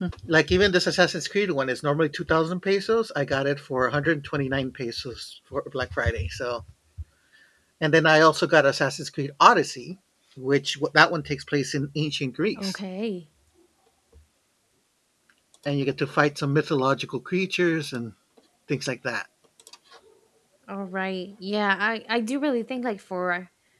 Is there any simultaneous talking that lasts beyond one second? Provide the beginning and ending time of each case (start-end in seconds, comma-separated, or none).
none